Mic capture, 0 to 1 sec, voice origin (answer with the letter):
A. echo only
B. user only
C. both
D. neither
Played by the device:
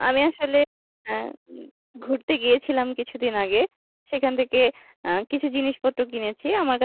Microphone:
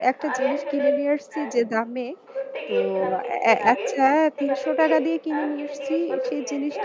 C